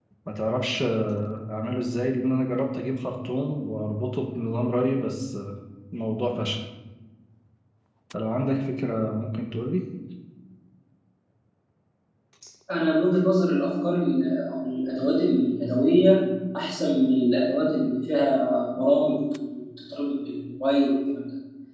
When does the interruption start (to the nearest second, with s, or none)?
none